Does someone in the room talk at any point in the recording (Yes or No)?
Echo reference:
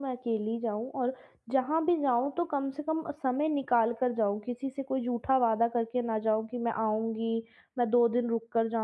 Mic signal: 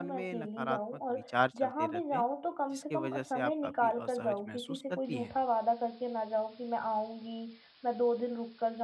Yes